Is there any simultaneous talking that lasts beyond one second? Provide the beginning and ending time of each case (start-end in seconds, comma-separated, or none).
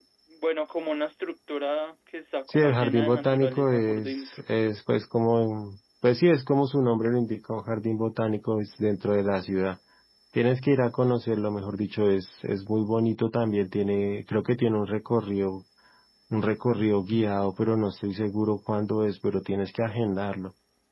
2.5-4.4